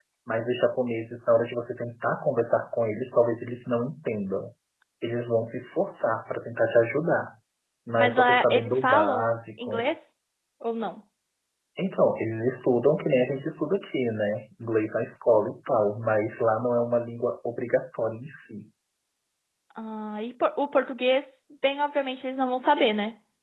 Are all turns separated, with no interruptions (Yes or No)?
No